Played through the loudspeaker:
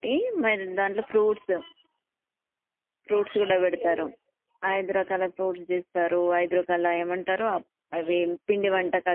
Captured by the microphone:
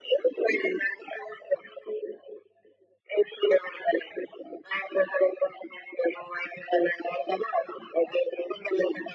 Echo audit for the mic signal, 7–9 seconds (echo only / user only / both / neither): echo only